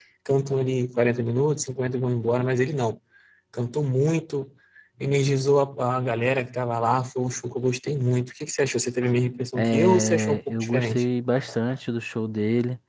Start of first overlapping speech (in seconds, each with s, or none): 9.6 s